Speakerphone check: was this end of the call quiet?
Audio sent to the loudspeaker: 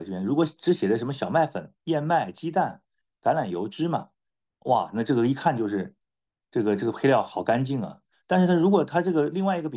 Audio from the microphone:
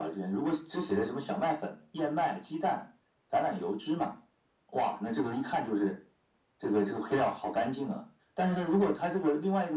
Yes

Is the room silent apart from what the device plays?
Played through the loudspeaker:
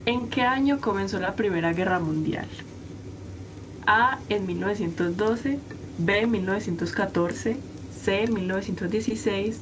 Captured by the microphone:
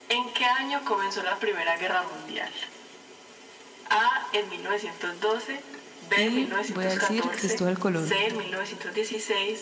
No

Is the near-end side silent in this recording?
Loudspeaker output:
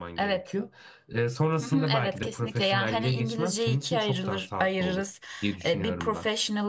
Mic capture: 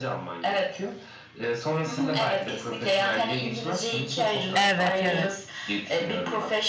No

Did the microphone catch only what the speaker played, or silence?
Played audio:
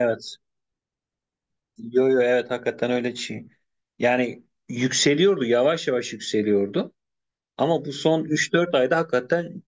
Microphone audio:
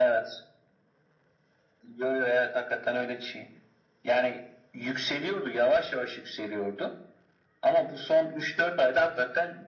Yes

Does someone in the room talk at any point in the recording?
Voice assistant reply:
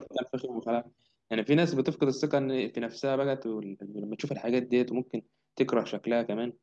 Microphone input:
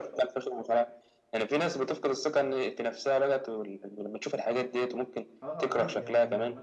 Yes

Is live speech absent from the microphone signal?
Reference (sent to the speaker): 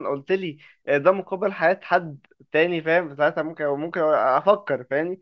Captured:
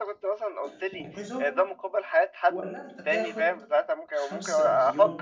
No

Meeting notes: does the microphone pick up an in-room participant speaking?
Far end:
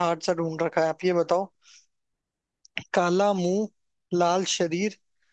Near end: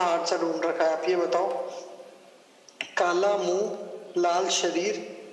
No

